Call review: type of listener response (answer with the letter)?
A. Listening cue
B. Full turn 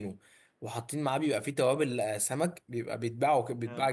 A